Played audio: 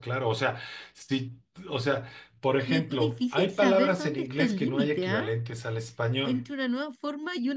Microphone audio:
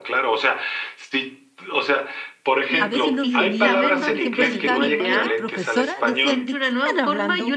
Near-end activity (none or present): present